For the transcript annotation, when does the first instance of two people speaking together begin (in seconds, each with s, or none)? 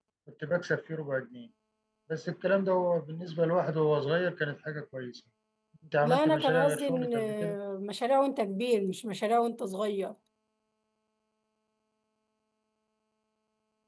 6.0 s